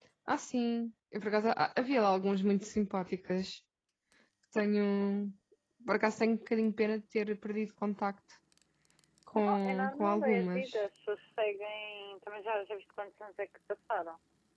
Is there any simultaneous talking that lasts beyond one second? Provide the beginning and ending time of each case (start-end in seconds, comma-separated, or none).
9.5-10.8